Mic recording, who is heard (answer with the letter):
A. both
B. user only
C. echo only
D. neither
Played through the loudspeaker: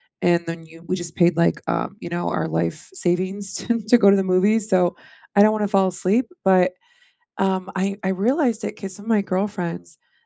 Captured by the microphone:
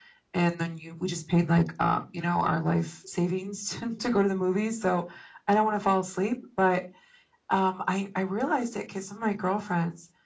C